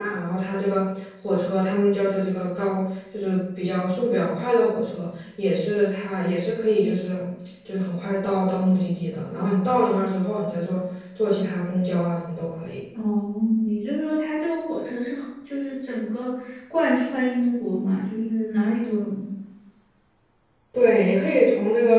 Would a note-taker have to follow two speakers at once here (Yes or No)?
No